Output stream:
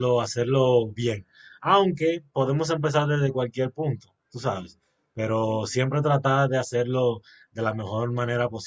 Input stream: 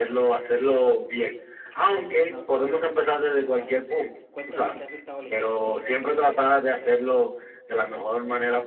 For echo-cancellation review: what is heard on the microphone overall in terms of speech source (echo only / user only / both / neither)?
both